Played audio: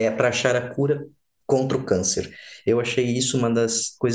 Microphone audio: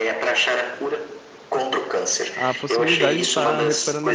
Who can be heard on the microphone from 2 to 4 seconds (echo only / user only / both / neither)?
both